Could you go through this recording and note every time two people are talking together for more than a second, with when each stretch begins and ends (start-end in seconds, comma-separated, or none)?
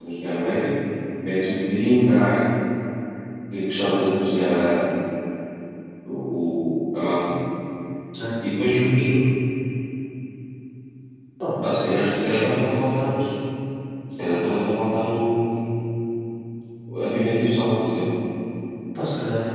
11.9-13.2